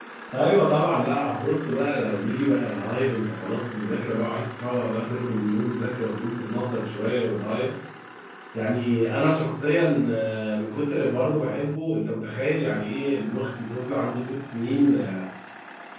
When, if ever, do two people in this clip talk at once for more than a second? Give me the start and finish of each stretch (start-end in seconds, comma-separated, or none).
none